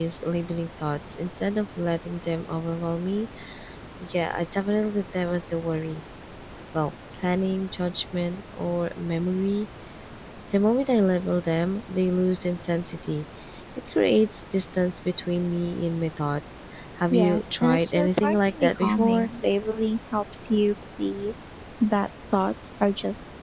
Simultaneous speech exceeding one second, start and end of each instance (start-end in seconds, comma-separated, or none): 17.1-19.3